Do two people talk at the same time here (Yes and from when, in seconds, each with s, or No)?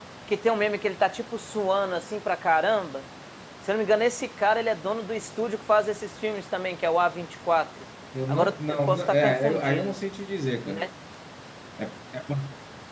Yes, from 8.3 s